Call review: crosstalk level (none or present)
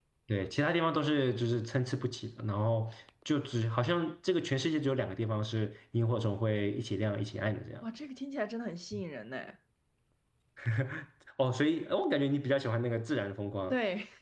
none